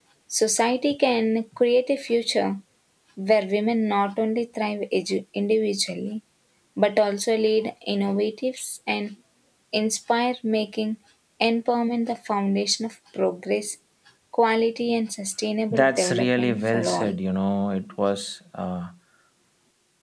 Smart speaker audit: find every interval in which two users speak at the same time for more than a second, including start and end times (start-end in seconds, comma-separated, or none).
15.7-17.1